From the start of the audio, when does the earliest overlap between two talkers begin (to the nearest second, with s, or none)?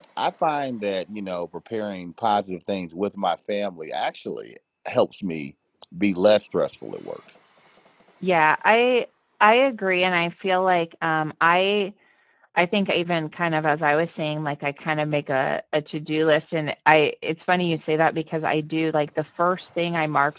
none